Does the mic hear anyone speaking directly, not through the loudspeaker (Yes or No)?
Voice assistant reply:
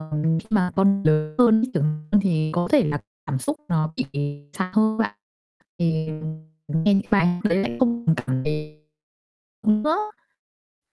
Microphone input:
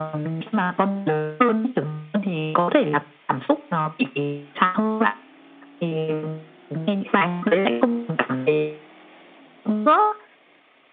No